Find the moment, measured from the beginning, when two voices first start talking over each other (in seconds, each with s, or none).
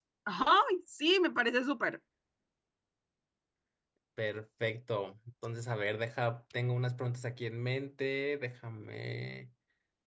none